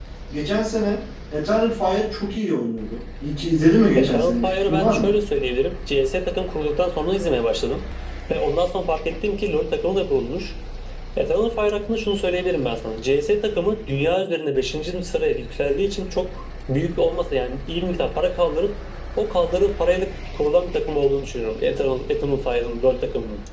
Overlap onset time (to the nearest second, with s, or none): 4 s